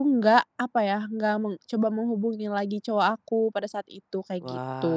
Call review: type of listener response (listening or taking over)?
taking over